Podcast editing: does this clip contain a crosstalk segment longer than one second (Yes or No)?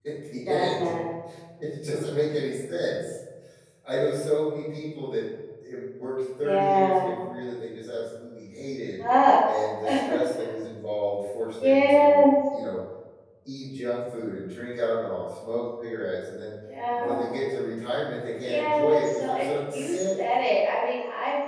Yes